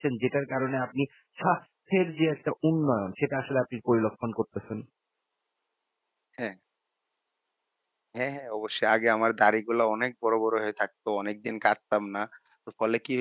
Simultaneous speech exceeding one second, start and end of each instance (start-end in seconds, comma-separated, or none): none